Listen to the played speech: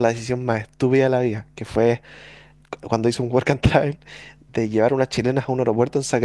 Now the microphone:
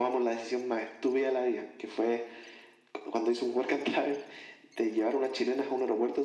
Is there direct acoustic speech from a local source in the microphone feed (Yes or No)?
No